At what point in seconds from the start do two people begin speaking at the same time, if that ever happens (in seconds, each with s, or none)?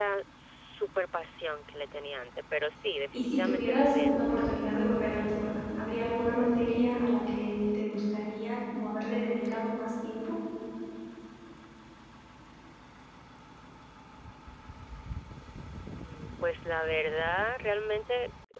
3.1 s